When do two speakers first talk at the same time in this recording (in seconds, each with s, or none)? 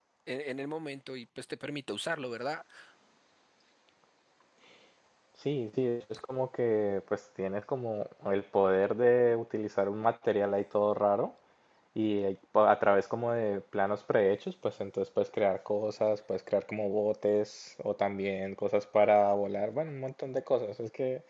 none